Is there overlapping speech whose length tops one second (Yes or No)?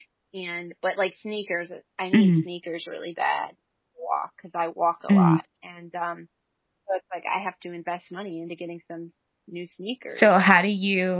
No